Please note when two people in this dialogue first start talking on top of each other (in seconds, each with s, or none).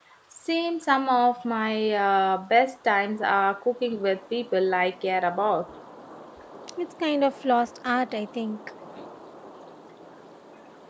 none